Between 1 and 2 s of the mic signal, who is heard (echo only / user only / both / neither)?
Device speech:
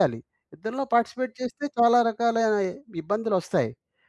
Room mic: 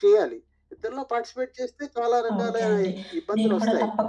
echo only